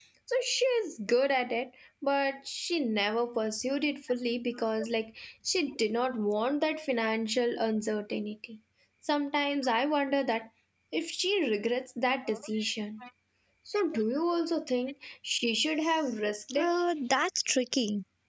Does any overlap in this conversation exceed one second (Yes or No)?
No